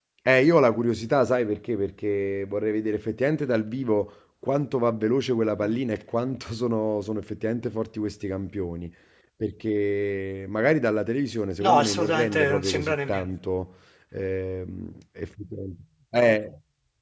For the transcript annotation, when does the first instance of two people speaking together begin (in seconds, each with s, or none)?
11.6 s